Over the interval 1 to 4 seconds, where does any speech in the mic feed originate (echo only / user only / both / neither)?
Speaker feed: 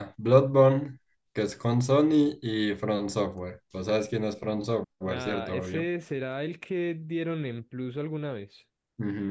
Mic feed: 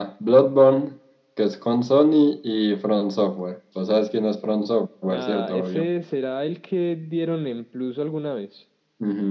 echo only